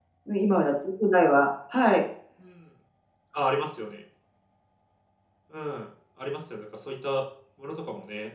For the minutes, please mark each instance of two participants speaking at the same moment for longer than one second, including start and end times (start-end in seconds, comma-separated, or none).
none